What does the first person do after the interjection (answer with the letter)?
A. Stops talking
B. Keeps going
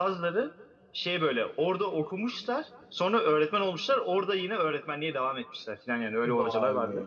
A